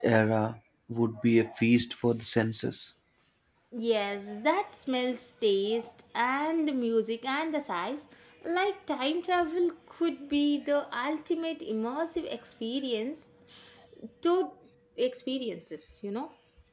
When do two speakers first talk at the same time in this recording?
none

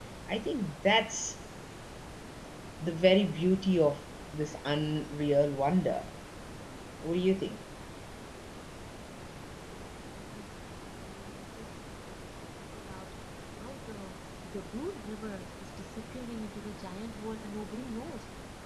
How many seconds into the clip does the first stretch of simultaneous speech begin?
none

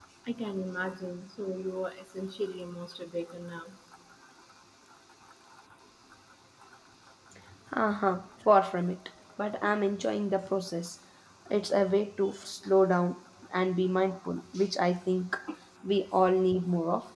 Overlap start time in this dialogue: none

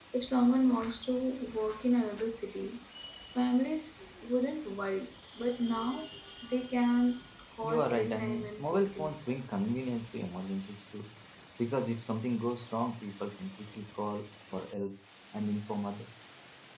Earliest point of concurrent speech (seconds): 7.6 s

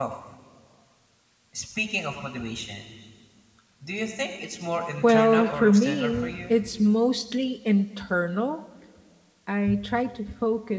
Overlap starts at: 5.0 s

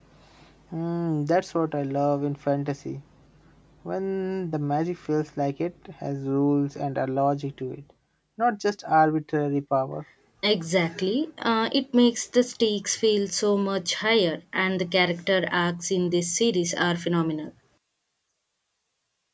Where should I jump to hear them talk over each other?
none

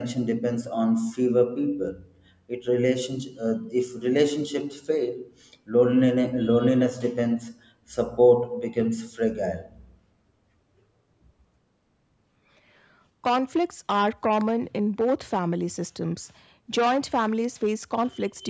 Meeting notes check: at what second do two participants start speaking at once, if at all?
none

